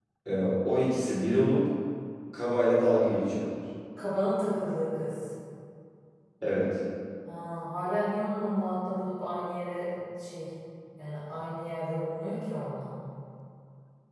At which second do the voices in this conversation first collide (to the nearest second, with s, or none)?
none